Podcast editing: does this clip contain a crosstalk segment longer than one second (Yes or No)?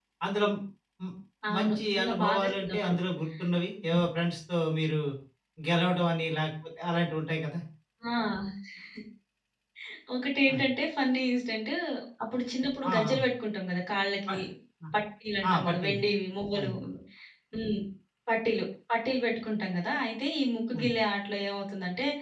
Yes